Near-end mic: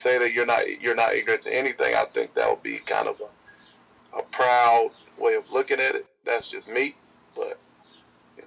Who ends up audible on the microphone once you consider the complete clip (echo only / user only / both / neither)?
echo only